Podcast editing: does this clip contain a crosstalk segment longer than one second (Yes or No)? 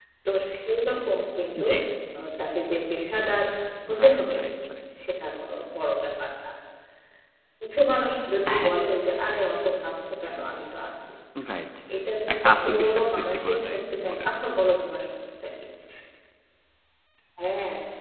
Yes